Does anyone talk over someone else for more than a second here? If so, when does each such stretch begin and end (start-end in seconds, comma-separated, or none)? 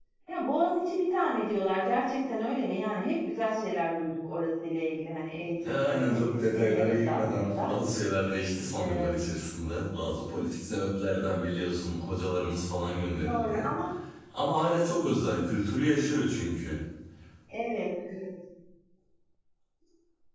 5.7-7.7